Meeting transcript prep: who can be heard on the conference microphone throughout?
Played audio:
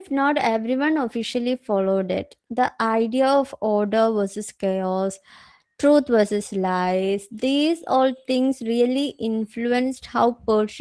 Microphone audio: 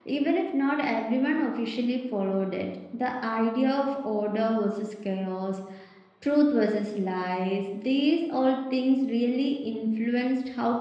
echo only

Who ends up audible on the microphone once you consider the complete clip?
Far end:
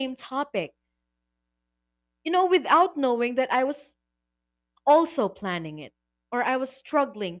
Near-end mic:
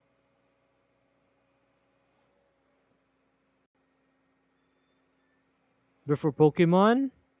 user only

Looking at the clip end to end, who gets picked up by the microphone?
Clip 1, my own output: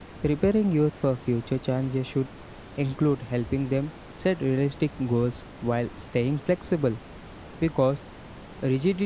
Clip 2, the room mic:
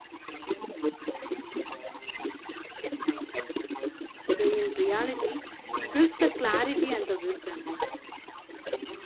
both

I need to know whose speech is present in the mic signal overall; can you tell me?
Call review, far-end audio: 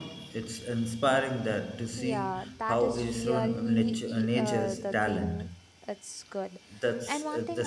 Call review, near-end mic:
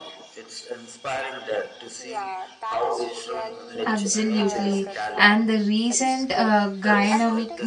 both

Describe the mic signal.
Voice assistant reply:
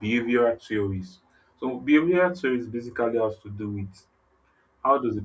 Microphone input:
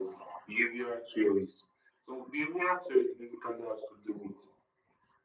echo only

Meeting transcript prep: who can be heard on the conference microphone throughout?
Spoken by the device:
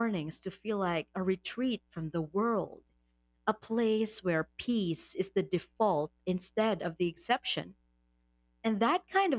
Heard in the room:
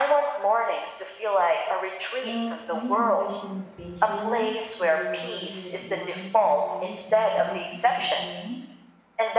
both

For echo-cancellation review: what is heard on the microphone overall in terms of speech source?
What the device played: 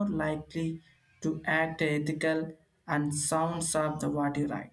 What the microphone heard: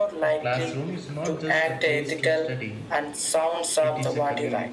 both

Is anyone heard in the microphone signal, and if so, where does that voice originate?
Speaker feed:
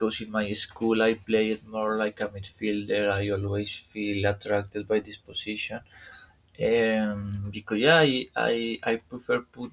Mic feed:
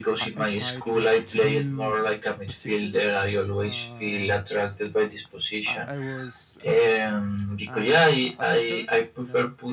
both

